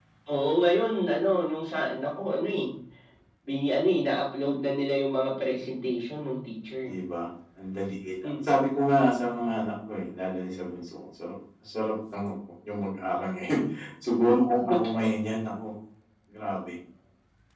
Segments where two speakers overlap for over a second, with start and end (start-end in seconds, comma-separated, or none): none